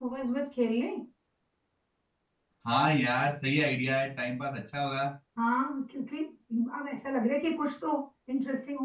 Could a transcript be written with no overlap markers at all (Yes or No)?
Yes